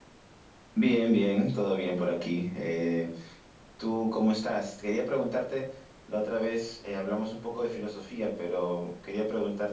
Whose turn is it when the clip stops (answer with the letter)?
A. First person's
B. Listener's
A